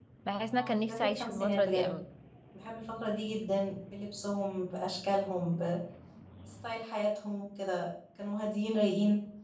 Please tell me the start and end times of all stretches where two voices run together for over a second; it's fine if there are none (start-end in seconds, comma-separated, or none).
0.5-1.9